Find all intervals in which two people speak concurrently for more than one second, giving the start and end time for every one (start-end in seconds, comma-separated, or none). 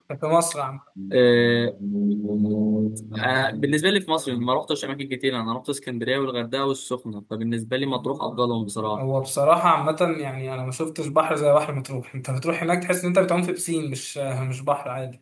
none